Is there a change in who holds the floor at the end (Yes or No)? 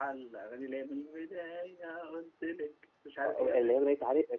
Yes